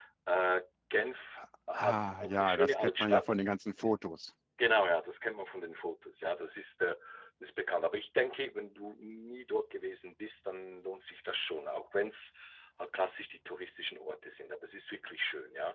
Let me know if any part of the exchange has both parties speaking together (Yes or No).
Yes